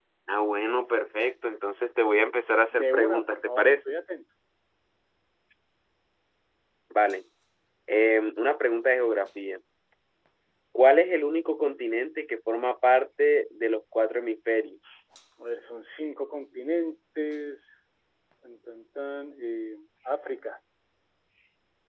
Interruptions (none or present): present